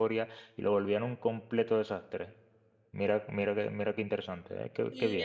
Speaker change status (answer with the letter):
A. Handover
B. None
A